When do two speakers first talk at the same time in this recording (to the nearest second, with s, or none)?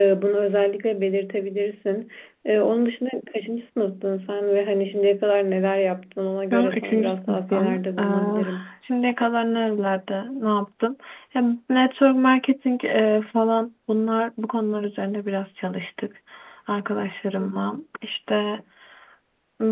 7 s